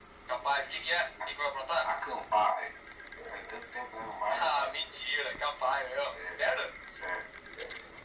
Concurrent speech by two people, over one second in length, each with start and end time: none

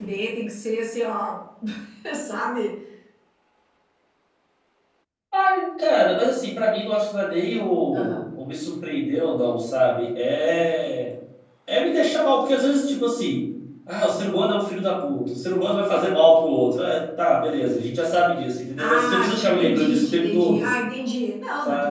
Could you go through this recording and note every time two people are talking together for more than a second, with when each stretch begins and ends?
18.8-20.7

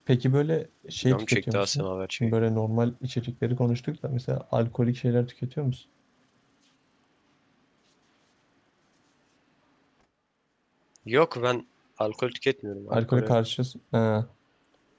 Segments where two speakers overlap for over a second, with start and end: 1.1-2.3

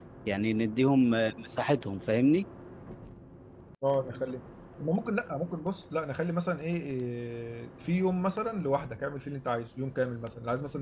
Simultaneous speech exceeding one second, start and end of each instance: none

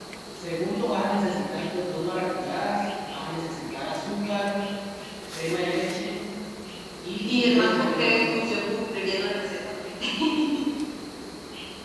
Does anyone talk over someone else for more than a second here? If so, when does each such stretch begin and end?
7.2-8.6

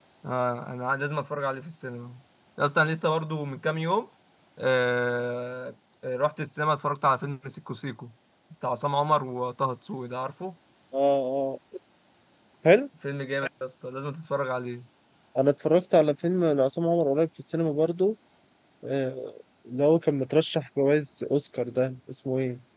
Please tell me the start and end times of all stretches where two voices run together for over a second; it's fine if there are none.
none

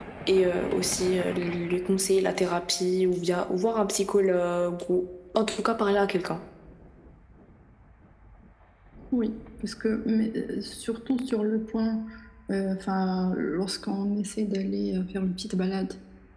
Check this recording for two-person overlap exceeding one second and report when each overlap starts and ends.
none

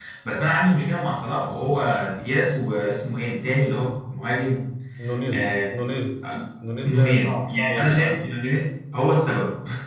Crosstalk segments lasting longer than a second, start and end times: 6.8-8.2

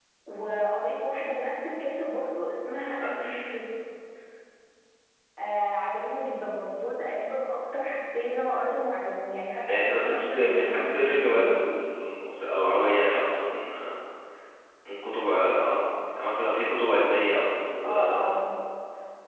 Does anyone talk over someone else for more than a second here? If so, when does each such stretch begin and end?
9.6-11.8

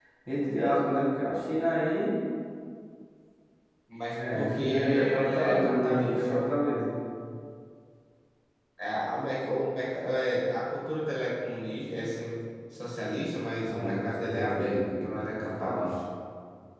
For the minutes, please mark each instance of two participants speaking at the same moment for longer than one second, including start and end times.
4.3-6.4, 13.6-15.9

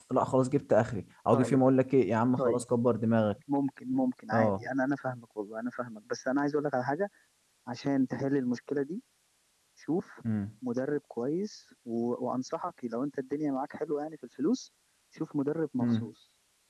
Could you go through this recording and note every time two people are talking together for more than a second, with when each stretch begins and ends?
none

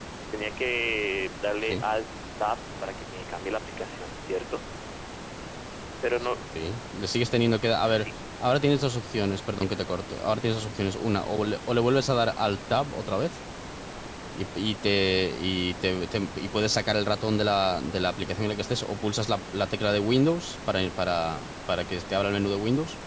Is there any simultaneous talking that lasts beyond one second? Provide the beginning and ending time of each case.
none

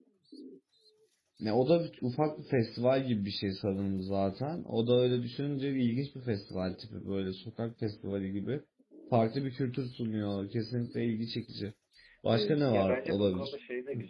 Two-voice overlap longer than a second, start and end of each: 12.3-13.5

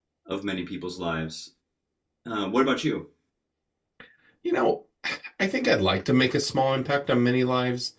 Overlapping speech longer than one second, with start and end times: none

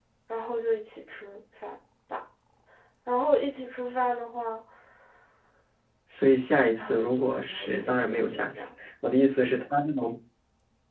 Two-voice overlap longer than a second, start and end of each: 6.8-8.7

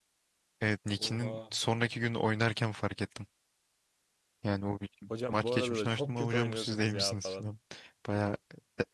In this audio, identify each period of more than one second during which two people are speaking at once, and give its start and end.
5.3-7.5

